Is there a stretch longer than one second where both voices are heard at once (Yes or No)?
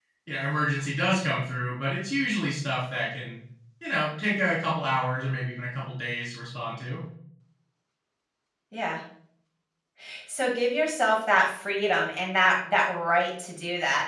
No